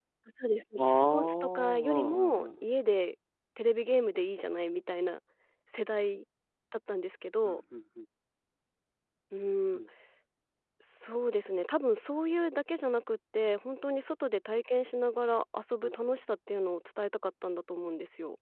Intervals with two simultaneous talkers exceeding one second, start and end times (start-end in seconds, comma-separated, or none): 0.9-2.6